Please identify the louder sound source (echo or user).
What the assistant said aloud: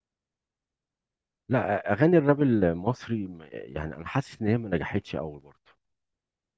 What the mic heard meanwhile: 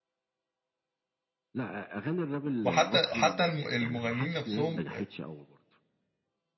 user